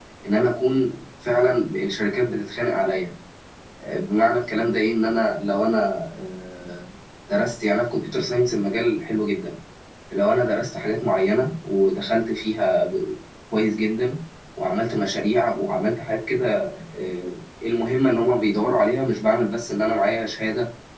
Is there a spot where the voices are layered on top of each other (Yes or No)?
No